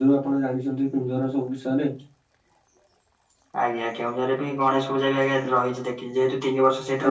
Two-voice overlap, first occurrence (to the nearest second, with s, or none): none